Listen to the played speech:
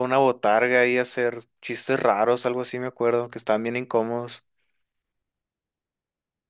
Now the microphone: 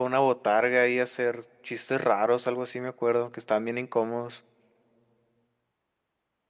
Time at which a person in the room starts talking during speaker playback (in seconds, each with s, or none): none